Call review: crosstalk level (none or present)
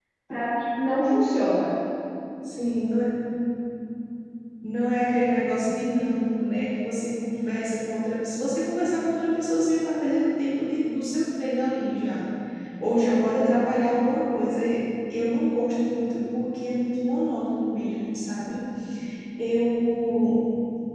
none